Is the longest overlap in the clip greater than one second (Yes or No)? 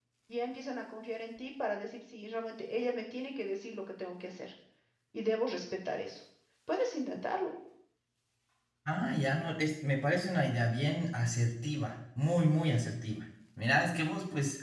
No